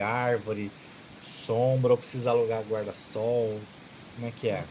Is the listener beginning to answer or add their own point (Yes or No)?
Yes